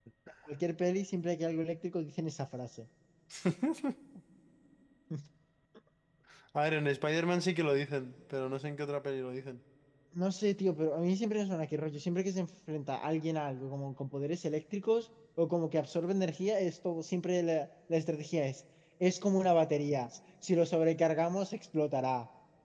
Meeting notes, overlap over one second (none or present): none